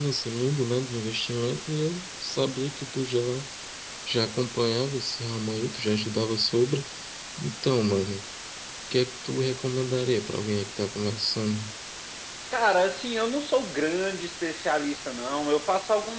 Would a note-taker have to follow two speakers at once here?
No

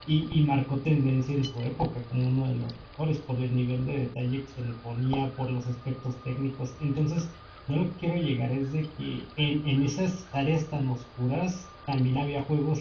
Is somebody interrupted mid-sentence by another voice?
No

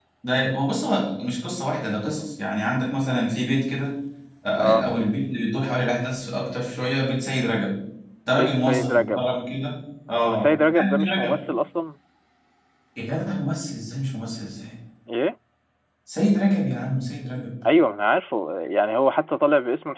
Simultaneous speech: Yes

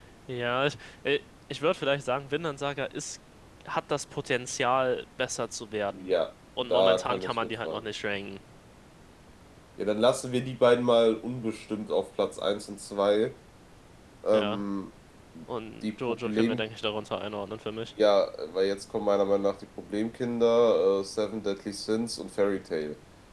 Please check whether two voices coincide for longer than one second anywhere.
Yes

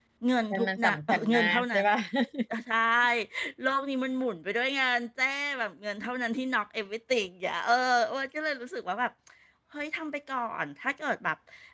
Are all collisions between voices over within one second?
No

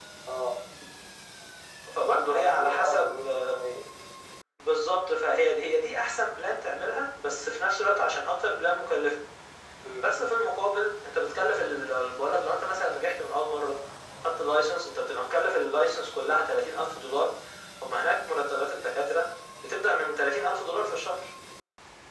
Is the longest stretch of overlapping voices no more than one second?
No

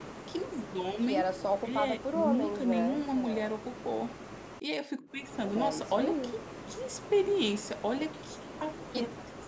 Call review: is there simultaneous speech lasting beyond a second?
Yes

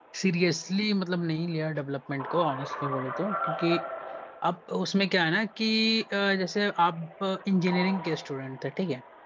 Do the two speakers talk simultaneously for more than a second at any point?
No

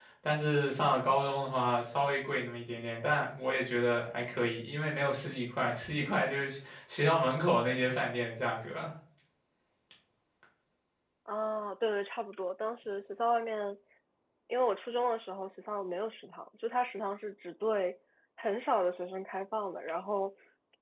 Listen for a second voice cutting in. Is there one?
No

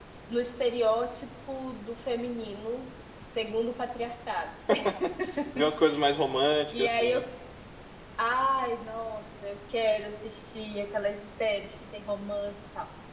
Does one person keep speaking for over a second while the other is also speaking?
No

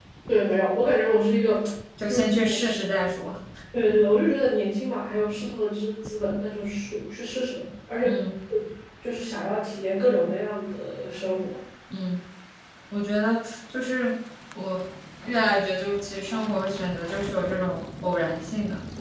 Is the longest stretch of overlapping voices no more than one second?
Yes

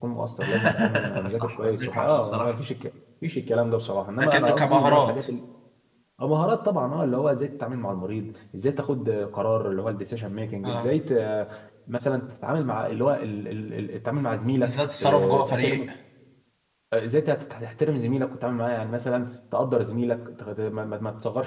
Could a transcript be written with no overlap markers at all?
No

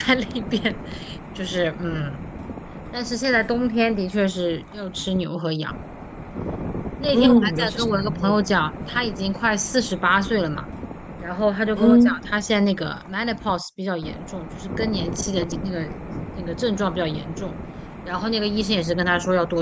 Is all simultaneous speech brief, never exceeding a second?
No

